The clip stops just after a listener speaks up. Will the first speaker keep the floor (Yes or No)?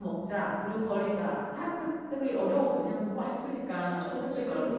No